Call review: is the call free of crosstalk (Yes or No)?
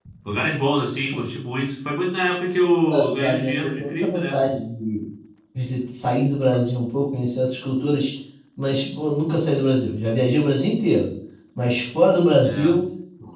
No